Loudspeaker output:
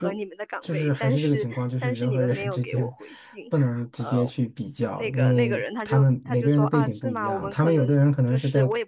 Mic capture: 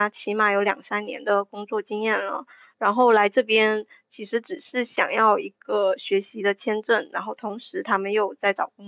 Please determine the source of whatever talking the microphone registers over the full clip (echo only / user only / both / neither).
user only